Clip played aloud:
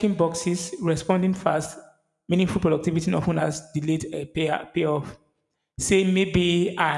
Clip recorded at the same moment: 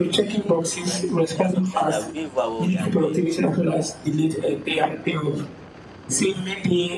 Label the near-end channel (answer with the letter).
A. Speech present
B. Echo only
A